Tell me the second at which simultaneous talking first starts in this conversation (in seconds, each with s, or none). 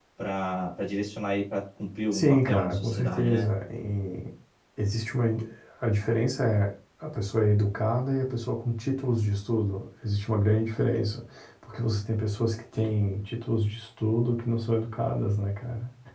2.1 s